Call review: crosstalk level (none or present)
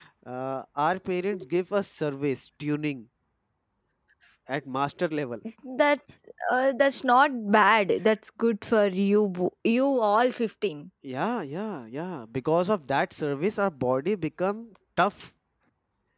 none